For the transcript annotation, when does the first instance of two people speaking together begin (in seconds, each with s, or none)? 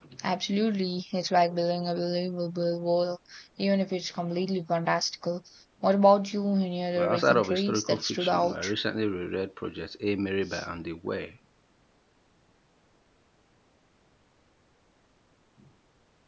7.0 s